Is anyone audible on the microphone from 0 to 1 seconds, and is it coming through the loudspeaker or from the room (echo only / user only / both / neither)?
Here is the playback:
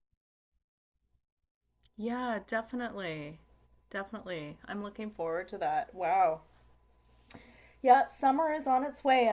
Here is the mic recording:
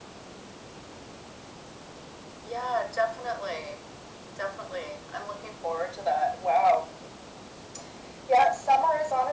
neither